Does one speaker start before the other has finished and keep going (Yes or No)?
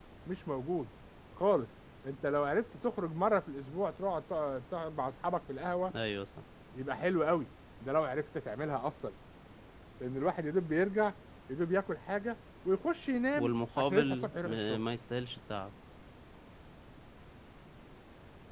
Yes